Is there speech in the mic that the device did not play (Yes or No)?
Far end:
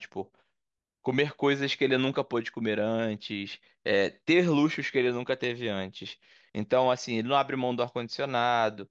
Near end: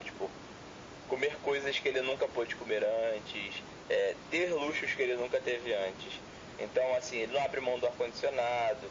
No